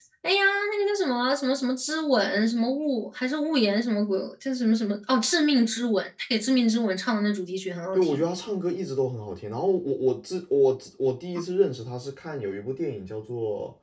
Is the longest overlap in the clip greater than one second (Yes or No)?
No